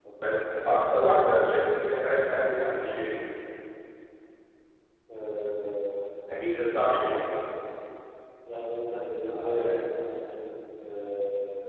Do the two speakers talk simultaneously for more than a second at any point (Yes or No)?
No